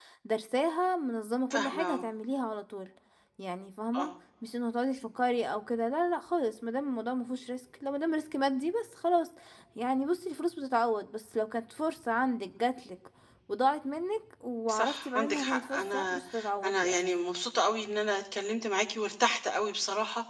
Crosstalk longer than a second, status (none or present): present